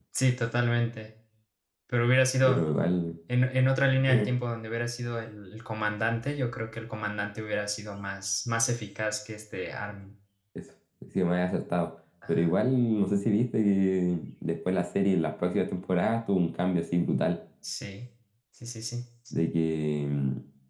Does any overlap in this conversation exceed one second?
No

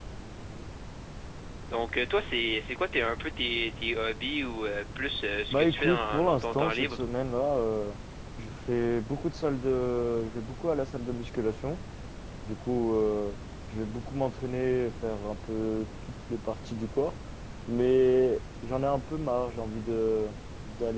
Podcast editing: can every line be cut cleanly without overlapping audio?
No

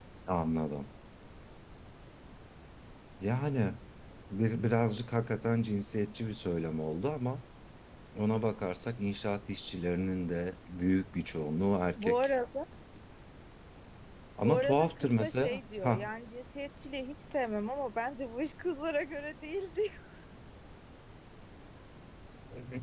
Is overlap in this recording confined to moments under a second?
No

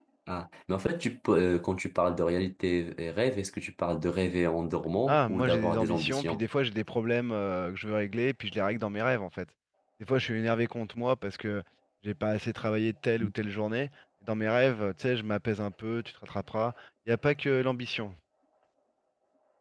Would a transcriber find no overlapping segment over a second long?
No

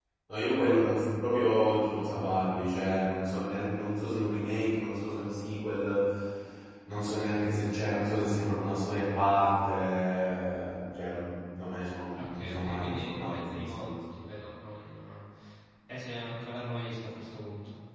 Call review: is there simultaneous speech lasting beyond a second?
Yes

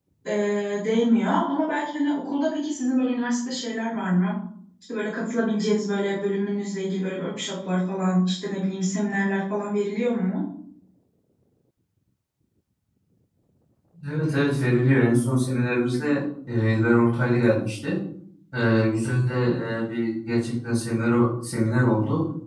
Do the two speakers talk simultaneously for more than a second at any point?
No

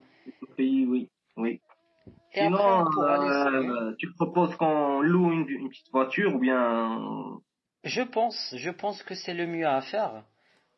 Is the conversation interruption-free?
No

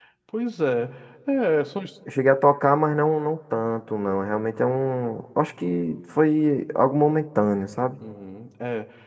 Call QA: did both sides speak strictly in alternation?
Yes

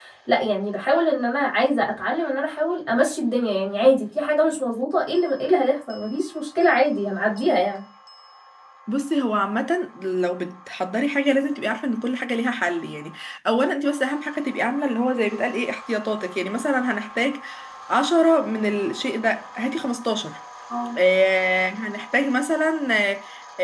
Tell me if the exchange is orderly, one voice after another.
Yes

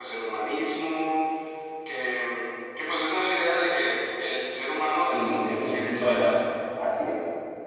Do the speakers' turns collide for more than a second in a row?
Yes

